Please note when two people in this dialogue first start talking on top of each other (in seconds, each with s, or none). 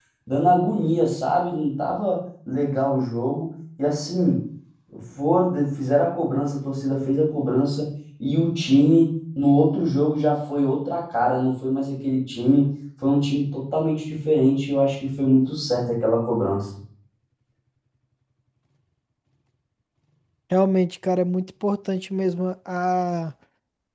none